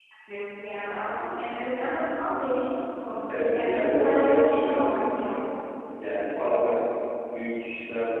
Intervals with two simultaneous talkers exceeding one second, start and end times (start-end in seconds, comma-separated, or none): 3.6-5.4